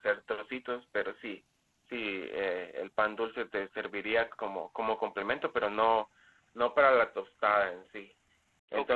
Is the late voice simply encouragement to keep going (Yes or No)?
No